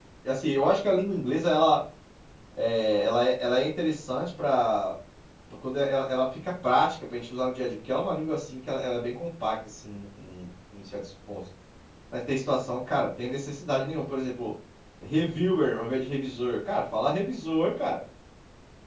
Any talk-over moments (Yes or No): No